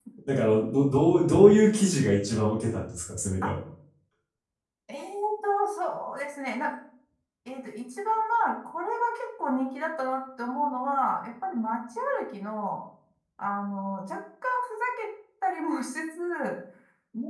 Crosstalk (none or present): none